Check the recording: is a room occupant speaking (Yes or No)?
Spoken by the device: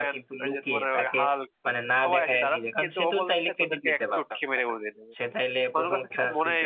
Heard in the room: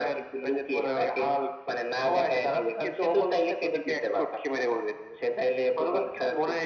No